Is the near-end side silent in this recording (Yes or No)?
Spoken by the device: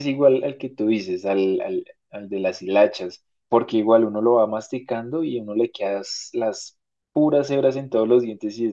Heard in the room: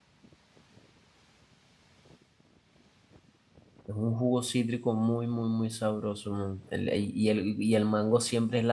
No